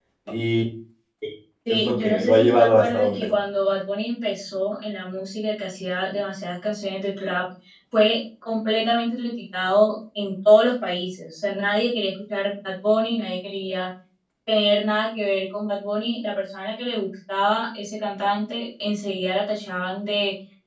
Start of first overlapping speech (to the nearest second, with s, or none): 2 s